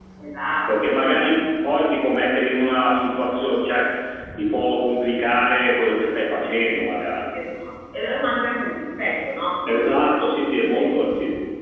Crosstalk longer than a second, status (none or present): present